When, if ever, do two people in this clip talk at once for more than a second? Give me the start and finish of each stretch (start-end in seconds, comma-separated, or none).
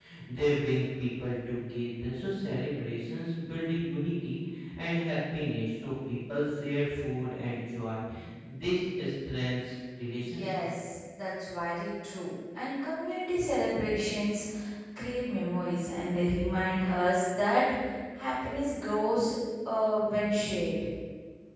none